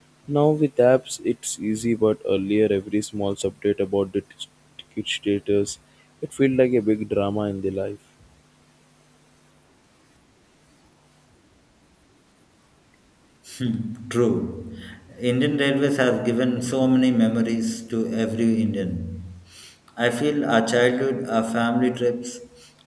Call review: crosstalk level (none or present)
none